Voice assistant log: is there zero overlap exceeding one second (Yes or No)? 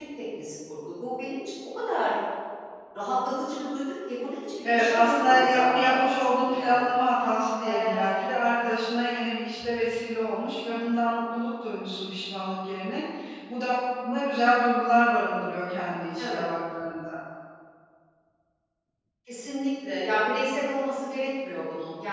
No